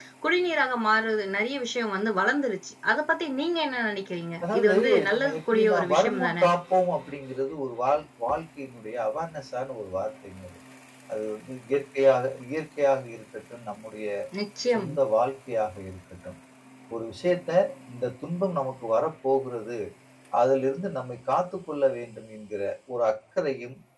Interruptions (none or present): present